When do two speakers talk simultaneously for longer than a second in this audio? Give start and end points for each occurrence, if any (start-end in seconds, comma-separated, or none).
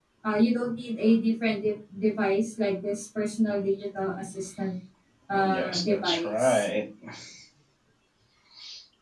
5.3-6.6